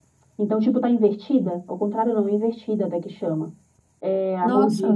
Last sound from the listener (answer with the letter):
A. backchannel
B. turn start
A